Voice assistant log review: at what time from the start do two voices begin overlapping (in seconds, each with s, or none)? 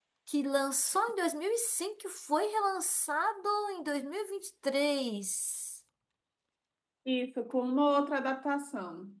none